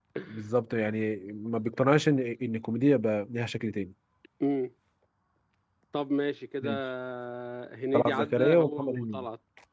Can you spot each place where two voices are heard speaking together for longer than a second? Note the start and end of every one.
7.9-9.2

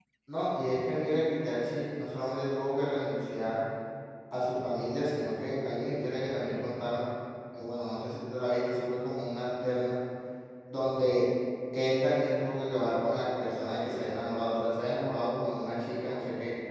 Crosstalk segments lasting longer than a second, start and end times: none

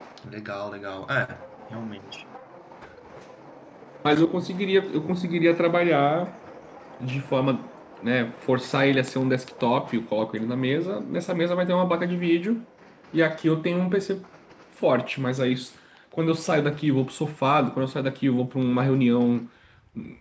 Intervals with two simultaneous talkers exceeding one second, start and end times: none

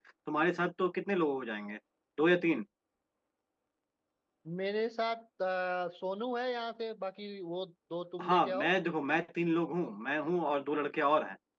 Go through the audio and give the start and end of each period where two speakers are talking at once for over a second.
none

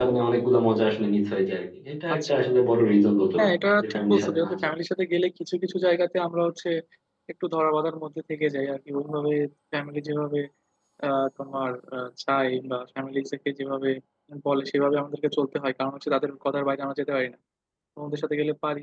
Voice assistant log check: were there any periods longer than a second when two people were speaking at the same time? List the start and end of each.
3.4-4.7

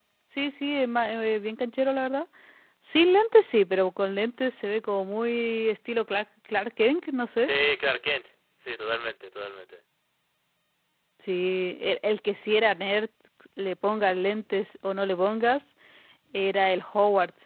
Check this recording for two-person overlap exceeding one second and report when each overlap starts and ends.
none

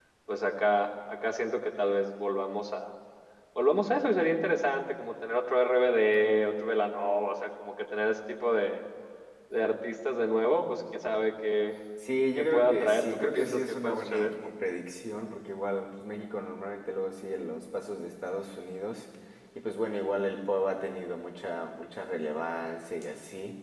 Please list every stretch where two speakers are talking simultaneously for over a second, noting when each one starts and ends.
12.4-14.3

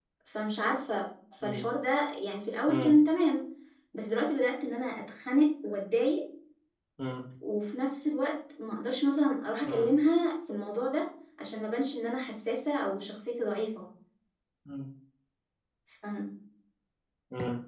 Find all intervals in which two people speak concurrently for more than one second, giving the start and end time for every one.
none

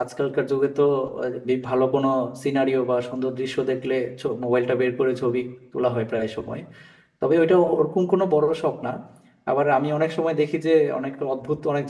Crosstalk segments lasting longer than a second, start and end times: none

